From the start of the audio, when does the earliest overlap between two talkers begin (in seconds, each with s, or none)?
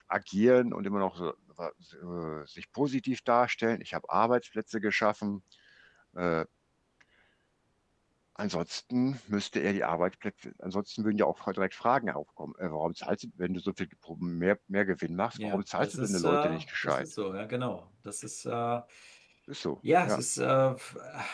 15.3 s